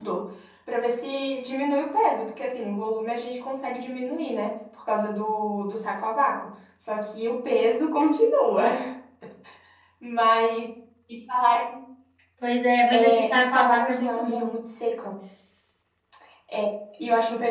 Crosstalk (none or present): present